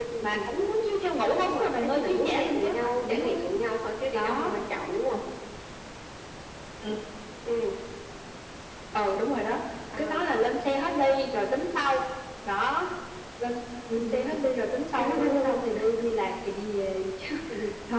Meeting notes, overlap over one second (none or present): present